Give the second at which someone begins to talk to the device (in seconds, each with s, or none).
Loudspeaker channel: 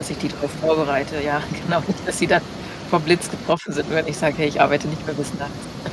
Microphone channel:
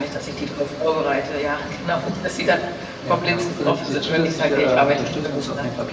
3.0 s